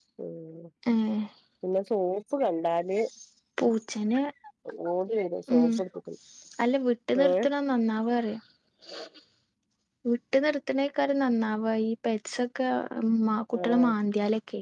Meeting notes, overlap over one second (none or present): none